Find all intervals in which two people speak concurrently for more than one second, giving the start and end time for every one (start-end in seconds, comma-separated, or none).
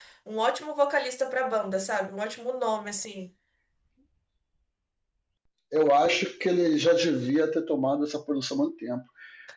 none